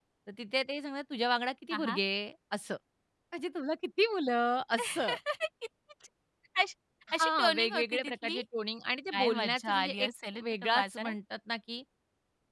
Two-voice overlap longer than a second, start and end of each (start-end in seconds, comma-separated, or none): 7.1-8.4, 9.1-11.1